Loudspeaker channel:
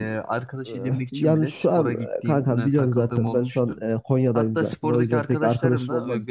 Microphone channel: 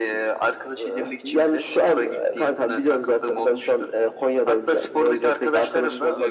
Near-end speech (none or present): none